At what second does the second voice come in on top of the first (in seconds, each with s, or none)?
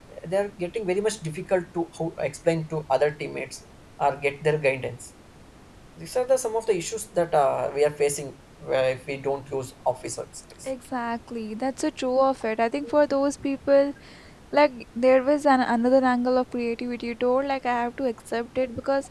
none